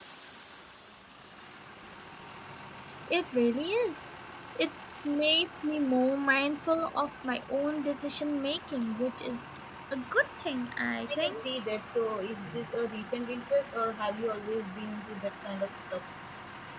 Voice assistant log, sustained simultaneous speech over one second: none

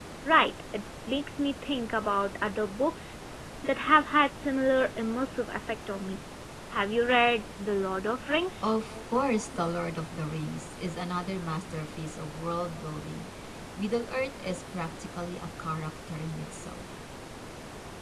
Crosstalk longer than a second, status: none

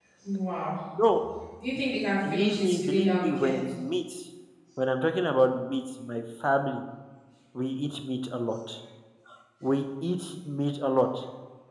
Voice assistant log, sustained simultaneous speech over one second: present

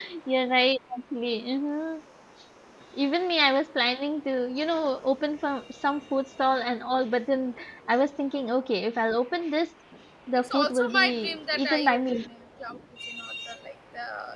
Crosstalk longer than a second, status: present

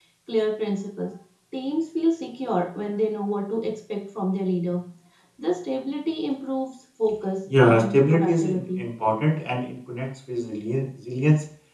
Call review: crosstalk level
present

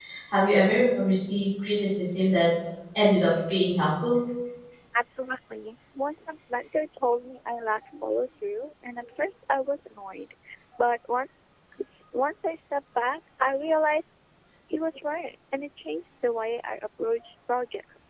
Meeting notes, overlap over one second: none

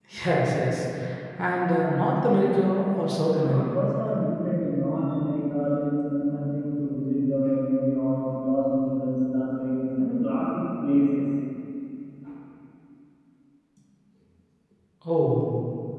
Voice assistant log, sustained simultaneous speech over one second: none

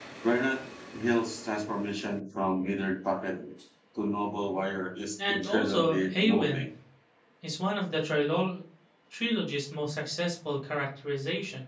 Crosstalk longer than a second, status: present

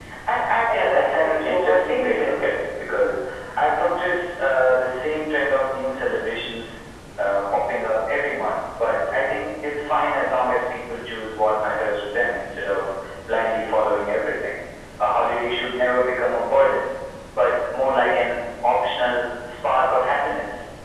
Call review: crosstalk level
present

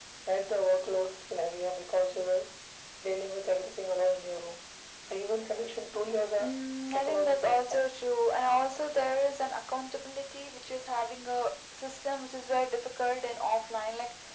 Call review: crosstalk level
present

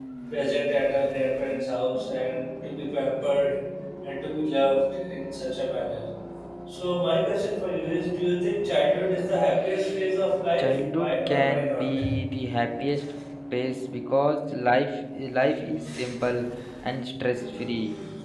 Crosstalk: present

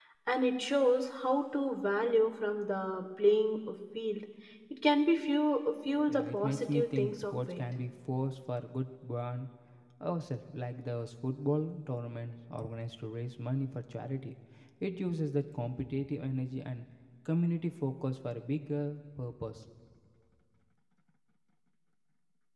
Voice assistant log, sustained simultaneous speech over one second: present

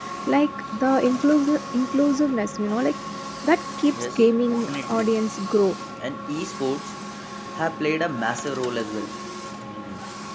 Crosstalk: present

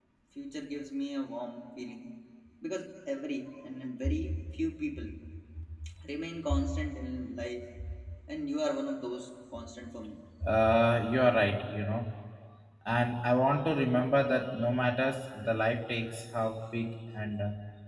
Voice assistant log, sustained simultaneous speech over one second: none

